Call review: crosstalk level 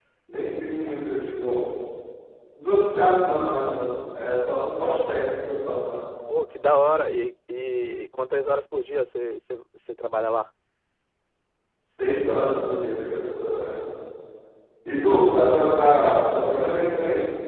none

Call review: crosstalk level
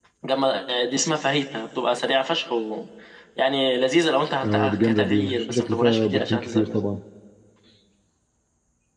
present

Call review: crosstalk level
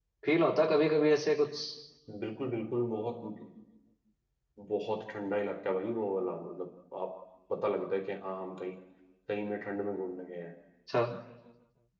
none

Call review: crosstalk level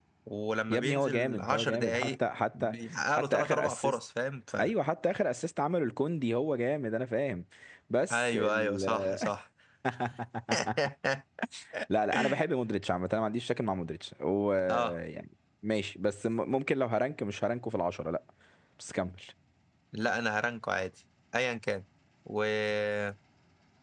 present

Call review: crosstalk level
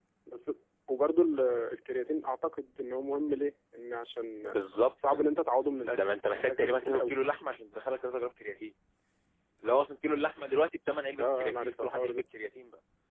present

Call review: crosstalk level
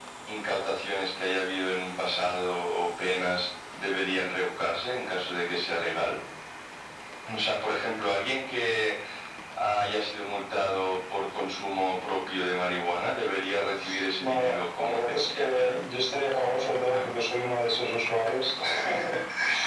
present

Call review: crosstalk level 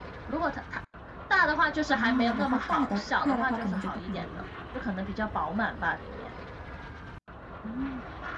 present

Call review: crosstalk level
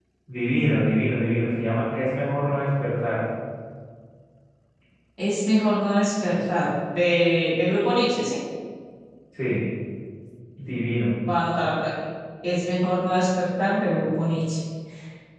none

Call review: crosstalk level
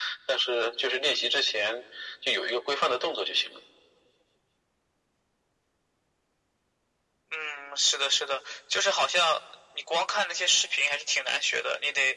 none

